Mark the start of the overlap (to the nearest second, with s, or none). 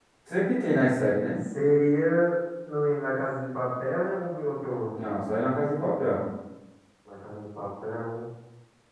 none